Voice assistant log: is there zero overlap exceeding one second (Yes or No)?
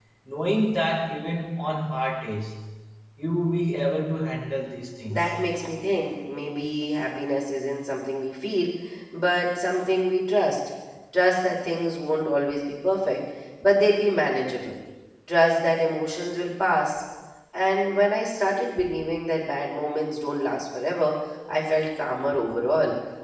Yes